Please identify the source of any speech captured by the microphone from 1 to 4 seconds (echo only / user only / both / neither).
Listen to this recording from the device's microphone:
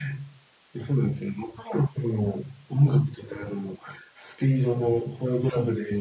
echo only